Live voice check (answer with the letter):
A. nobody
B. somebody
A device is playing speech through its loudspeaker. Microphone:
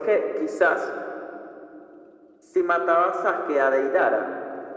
A